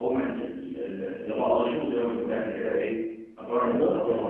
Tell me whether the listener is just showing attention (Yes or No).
No